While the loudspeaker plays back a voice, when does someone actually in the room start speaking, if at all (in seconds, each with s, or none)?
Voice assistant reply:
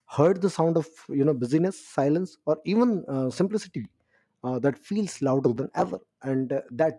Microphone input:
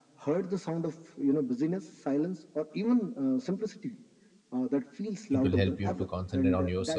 5.3 s